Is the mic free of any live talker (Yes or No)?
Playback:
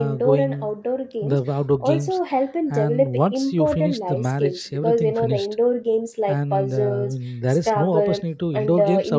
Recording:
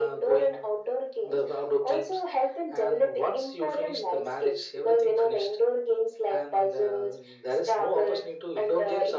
Yes